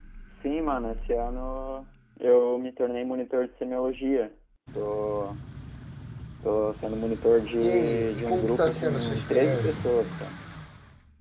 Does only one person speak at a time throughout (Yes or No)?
No